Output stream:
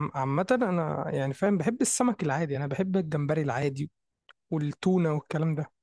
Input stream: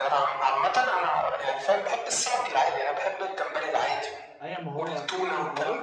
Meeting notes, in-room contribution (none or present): present